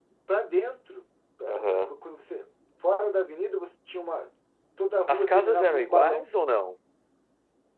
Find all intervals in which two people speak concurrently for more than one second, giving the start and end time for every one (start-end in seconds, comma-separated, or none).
5.1-6.3